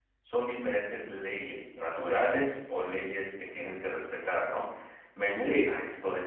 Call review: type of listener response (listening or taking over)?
listening